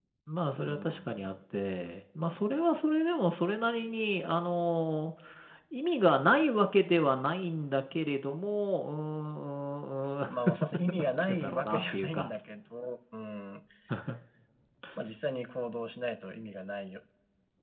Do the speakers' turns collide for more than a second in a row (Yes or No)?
Yes